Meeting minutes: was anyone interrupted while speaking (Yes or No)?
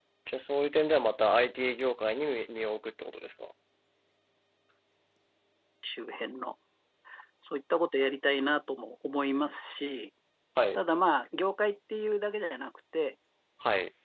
No